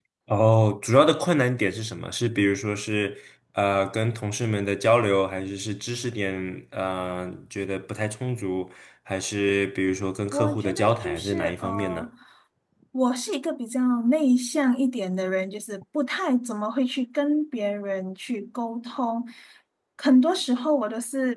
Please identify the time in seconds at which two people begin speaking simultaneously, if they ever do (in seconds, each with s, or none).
10.3 s